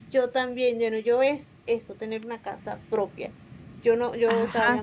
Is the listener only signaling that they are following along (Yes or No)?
Yes